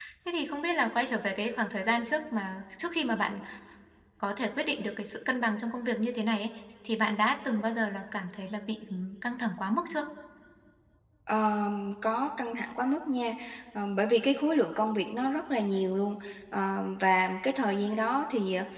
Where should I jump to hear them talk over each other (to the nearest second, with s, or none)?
none